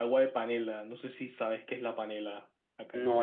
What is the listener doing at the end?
taking over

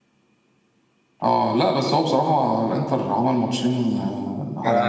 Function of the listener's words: taking over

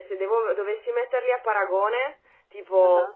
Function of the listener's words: listening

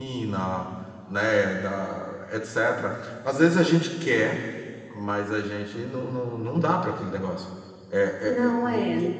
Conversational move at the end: listening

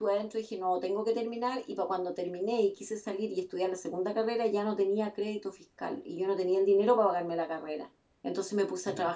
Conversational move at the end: listening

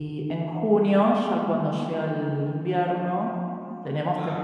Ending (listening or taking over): listening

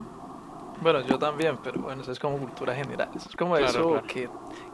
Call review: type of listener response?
listening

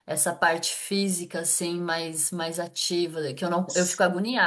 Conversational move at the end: listening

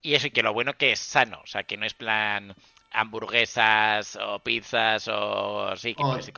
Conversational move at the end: taking over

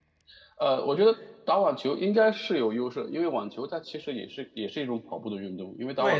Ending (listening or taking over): taking over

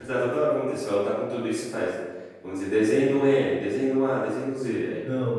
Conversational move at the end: taking over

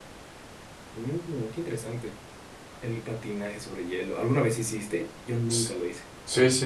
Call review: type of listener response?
taking over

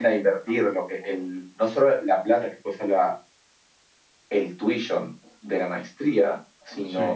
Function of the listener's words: listening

